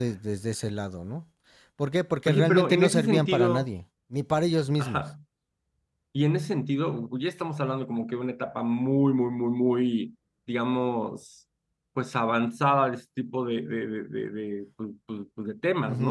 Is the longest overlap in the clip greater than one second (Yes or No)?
Yes